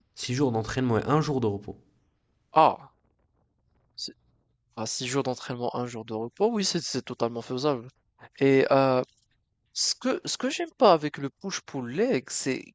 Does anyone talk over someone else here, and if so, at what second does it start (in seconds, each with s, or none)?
none